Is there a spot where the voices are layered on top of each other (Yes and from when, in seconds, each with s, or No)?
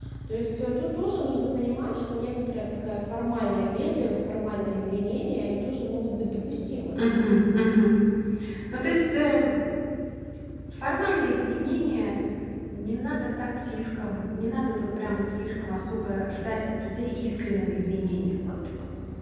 No